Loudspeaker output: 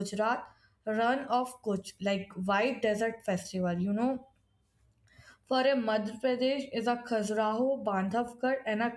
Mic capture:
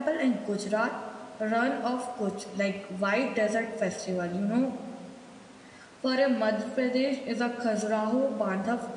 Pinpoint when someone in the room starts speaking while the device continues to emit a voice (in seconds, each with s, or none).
none